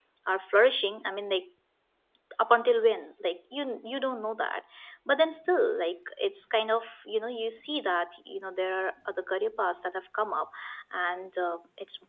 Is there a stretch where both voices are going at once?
No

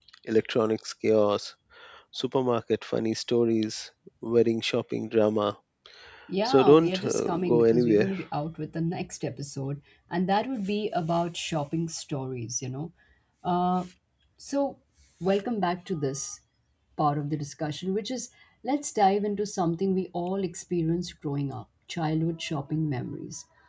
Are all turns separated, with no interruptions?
No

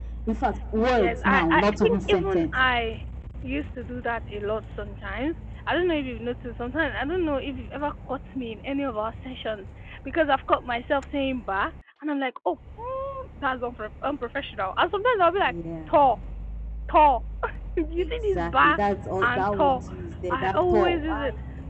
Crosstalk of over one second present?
Yes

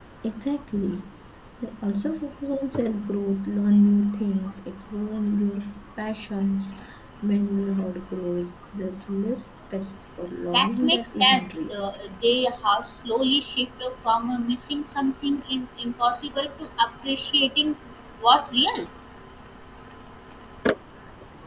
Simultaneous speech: Yes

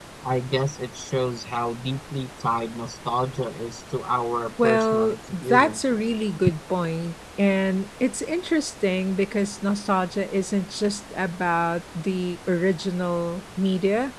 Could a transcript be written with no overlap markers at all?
No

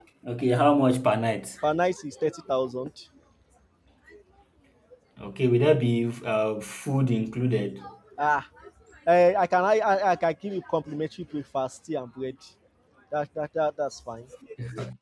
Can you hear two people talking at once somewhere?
No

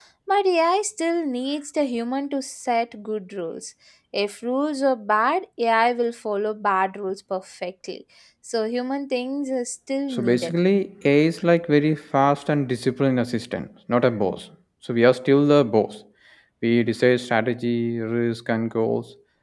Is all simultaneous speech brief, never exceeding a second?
Yes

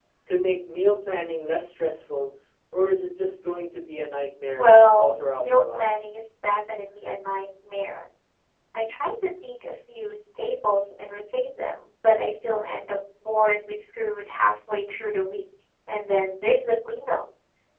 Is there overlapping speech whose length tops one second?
Yes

